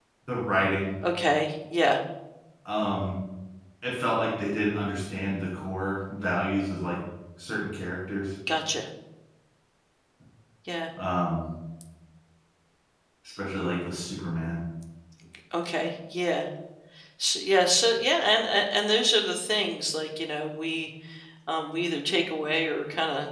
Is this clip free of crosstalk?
Yes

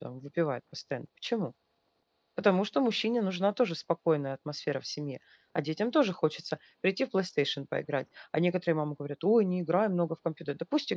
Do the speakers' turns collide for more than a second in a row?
No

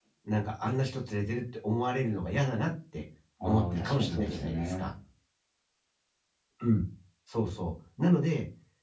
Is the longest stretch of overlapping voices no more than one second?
No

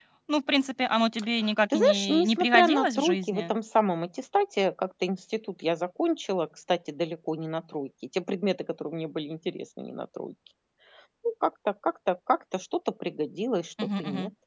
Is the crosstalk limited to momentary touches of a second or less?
No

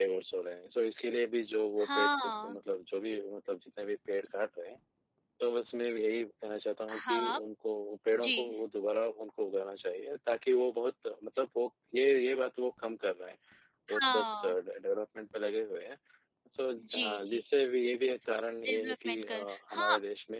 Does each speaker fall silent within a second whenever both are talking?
No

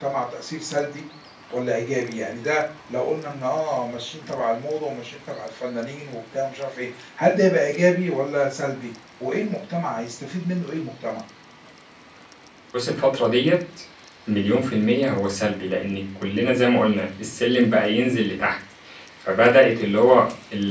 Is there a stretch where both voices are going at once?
No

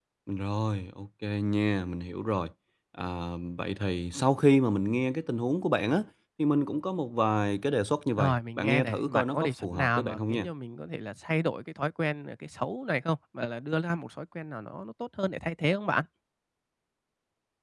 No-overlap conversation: No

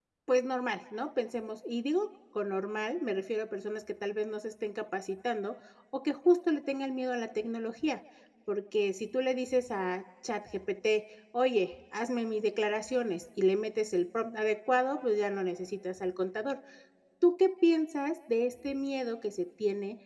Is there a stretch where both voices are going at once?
No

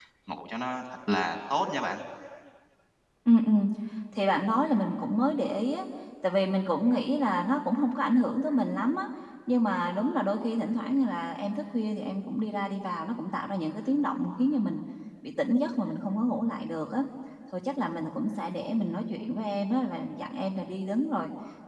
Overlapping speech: No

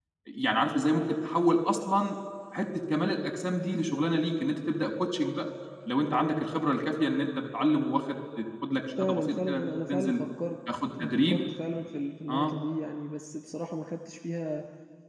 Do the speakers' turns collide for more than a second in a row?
Yes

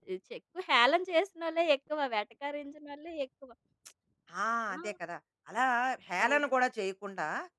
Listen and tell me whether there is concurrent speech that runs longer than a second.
No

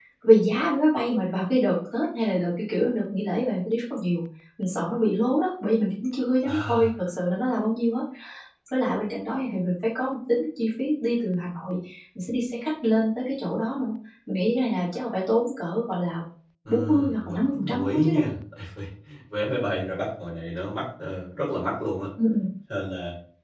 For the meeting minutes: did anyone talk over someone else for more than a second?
Yes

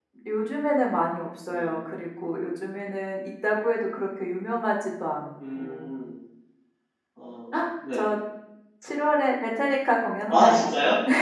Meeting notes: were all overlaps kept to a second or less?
Yes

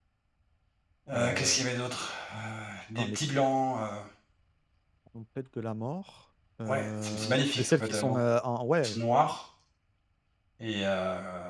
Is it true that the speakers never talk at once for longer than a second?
No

